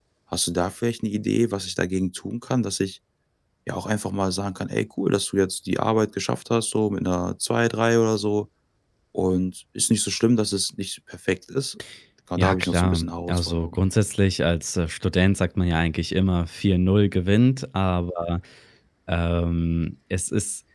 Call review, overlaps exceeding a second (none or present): present